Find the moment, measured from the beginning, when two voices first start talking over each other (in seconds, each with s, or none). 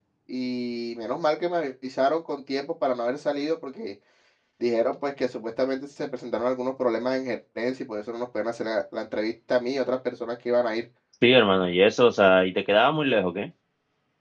none